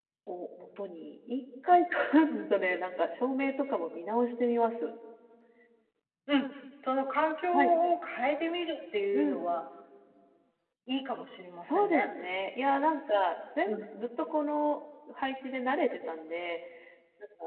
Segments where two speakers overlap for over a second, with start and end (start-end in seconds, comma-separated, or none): none